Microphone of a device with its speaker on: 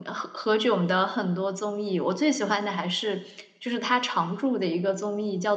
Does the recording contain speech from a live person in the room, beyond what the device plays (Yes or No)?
Yes